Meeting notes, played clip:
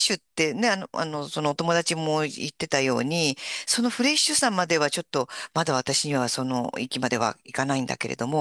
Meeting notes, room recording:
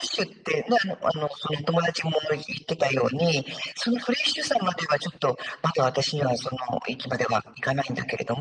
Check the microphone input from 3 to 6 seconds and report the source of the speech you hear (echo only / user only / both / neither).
echo only